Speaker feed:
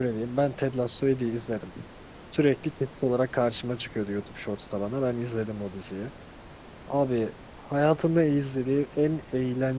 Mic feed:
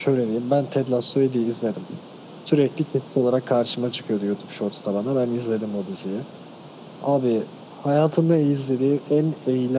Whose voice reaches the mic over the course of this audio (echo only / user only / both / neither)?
echo only